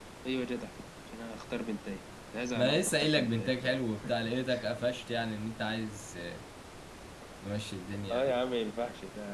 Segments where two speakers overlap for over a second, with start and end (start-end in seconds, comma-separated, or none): 2.5-3.8